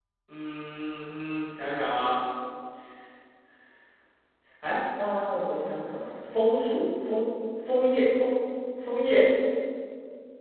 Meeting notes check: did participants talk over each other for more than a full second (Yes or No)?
No